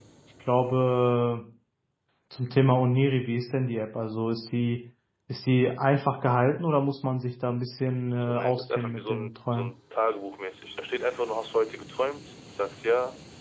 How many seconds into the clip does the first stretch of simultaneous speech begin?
8.2 s

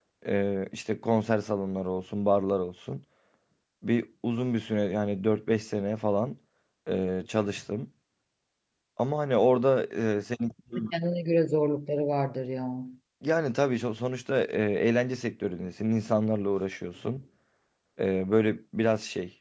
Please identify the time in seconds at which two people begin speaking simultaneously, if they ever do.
none

